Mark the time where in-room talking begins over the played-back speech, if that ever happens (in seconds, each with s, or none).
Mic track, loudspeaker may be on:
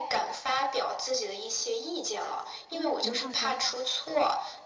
2.7 s